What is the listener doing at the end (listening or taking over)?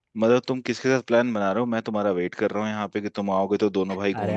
taking over